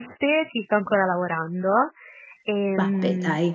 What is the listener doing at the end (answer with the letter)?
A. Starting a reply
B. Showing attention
B